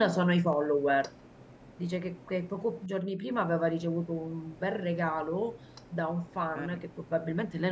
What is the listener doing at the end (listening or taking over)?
listening